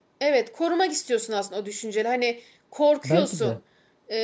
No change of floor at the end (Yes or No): Yes